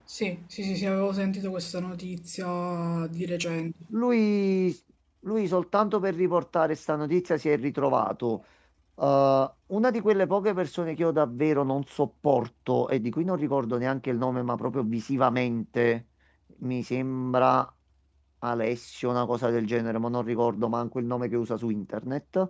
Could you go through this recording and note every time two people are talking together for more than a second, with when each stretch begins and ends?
none

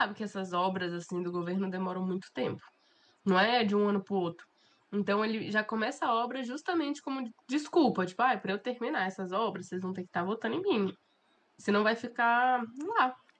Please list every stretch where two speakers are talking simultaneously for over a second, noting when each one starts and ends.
none

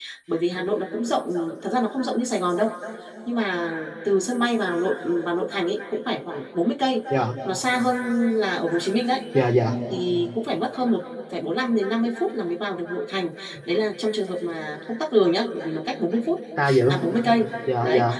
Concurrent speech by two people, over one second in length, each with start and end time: none

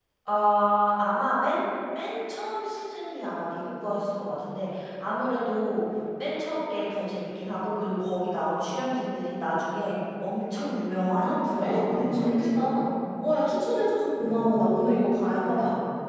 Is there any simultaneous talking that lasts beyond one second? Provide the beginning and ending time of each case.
11.2-12.6

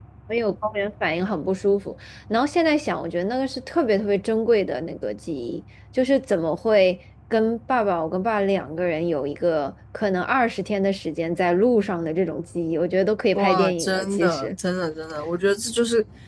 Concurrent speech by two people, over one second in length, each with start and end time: 13.3-14.6

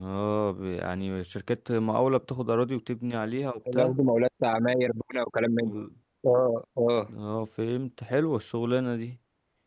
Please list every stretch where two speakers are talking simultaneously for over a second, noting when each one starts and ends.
none

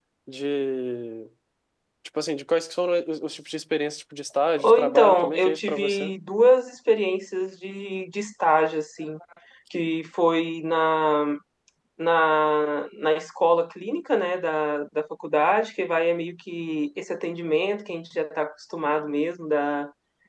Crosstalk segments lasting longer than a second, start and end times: 4.6-6.1

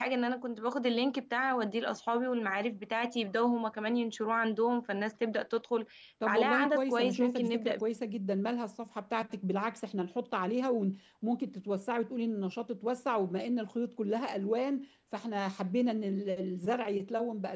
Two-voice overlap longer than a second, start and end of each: 6.3-7.8

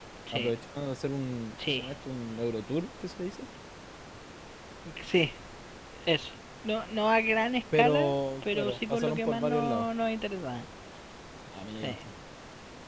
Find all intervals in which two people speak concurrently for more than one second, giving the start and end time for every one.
7.7-9.9

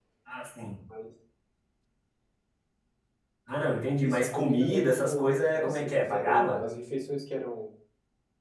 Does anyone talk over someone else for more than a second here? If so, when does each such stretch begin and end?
4.0-6.6

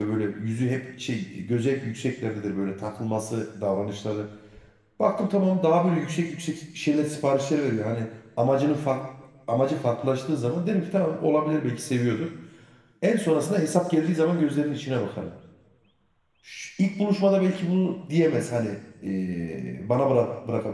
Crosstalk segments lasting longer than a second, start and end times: none

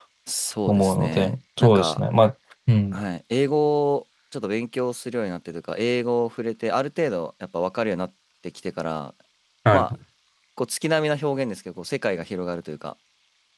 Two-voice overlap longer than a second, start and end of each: 0.7-2.0

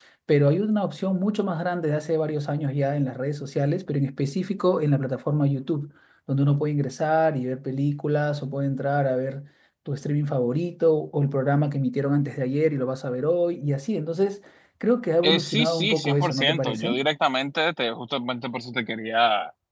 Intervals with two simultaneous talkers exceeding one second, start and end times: 15.2-17.0

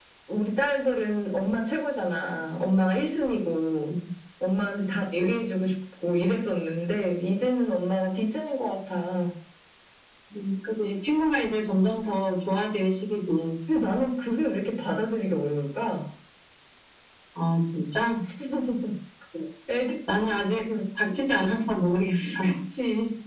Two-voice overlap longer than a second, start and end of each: none

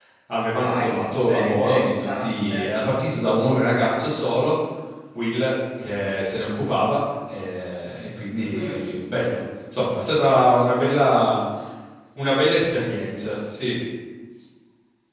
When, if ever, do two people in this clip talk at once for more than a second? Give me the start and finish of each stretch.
0.6-2.7

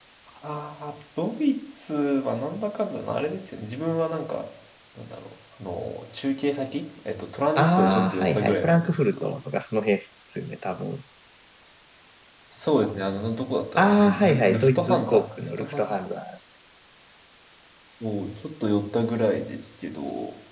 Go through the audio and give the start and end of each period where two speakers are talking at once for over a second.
7.6-9.3, 13.8-16.0

